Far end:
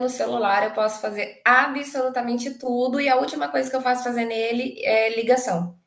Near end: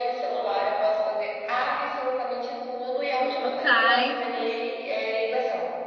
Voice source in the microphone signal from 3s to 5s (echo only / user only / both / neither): both